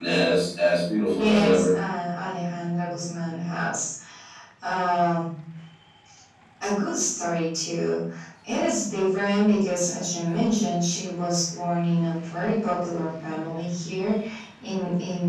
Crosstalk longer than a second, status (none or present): none